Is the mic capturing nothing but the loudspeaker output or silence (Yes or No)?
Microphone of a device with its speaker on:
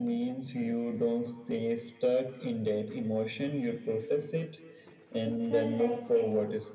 No